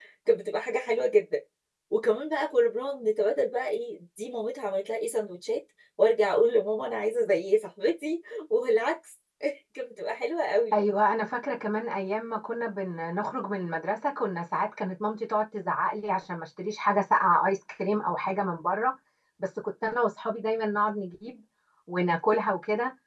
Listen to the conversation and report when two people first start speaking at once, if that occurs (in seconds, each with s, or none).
none